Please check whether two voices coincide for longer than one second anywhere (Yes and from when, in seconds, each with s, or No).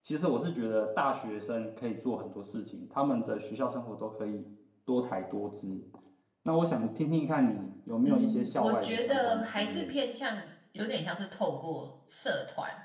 Yes, from 8.0 s